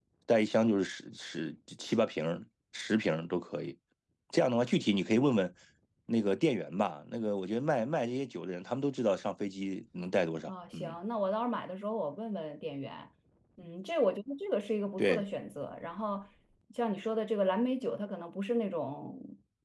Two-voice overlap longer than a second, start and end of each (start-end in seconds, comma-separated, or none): none